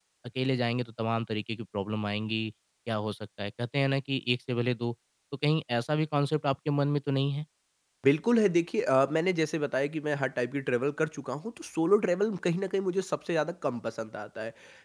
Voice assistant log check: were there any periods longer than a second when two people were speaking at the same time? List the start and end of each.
none

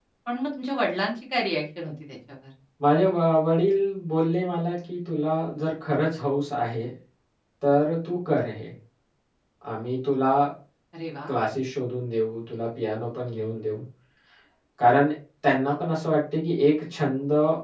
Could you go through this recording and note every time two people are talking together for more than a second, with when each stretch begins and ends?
none

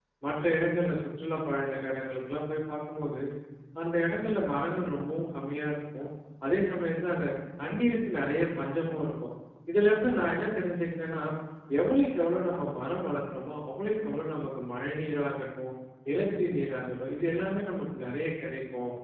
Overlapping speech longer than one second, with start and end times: none

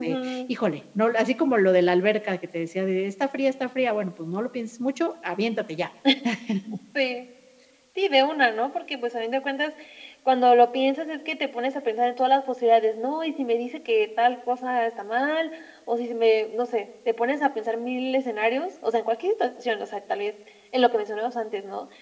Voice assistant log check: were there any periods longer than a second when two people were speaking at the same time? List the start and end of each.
none

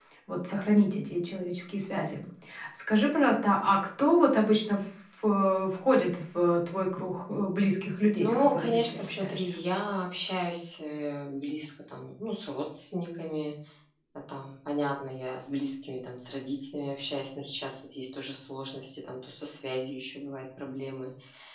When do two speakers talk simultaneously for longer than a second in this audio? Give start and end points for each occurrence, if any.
8.2-9.5

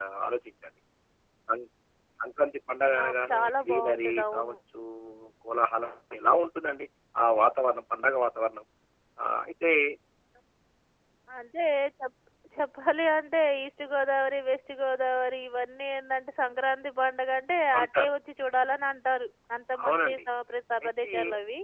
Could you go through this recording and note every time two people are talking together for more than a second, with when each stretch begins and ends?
3.0-4.5

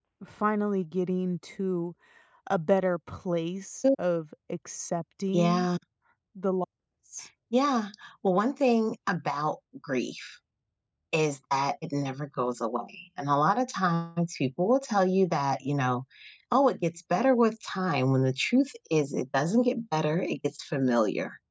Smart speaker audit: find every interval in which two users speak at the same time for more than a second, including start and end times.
none

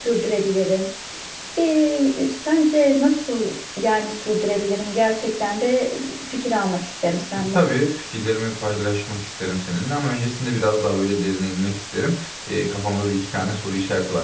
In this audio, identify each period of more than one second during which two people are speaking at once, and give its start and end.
none

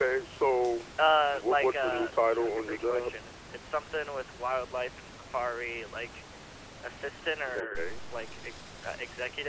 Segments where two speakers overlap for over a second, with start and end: 1.3-3.1

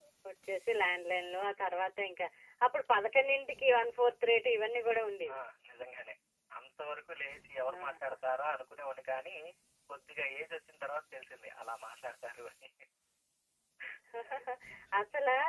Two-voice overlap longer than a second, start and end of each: none

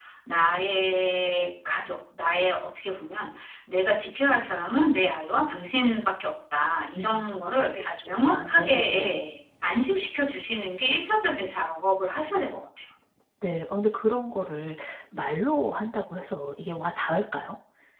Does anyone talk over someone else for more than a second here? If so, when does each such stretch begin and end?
7.7-9.2

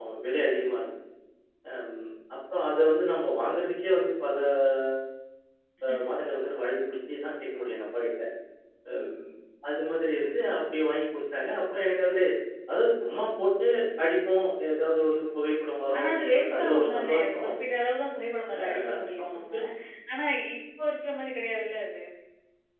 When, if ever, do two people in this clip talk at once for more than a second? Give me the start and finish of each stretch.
15.9-17.5

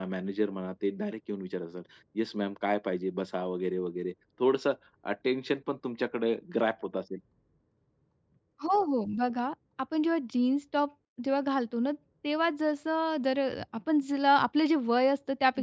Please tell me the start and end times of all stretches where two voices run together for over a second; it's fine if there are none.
none

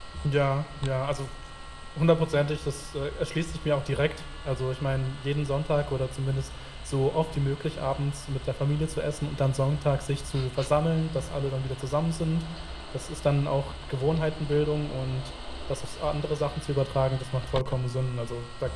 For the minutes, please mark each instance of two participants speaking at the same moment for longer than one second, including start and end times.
none

